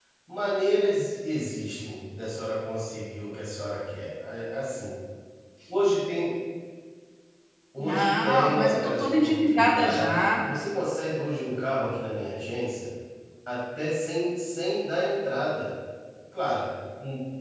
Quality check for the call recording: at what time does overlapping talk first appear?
7.8 s

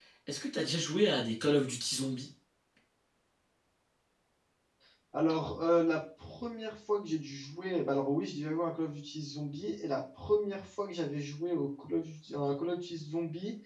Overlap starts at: none

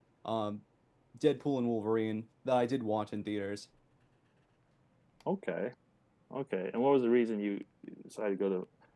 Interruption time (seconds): none

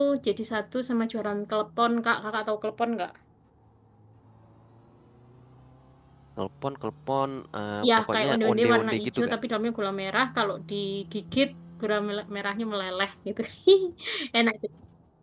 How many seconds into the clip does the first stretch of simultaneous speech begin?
7.8 s

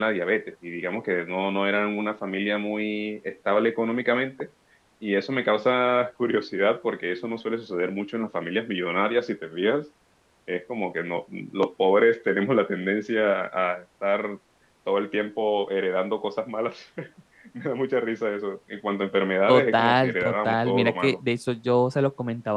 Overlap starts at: 19.5 s

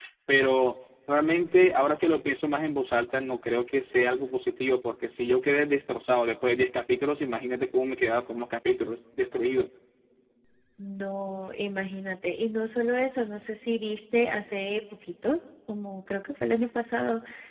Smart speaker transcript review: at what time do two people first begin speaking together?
none

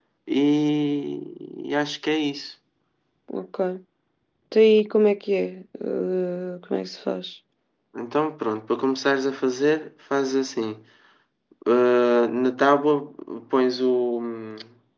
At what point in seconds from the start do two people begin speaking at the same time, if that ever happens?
none

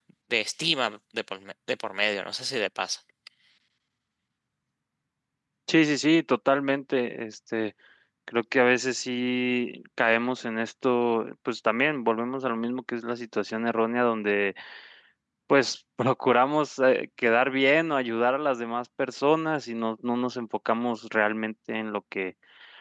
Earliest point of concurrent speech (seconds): none

